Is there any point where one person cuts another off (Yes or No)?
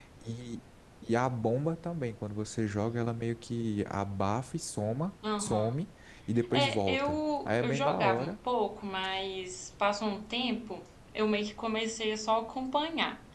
Yes